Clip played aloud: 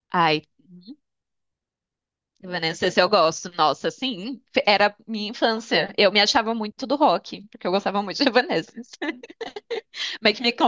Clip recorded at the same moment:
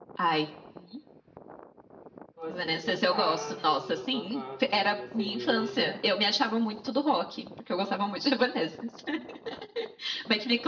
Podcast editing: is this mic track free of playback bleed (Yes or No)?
No